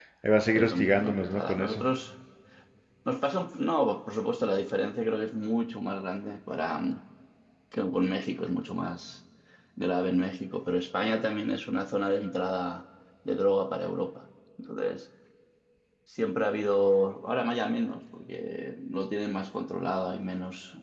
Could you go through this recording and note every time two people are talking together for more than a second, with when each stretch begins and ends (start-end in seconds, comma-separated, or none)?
0.6-1.8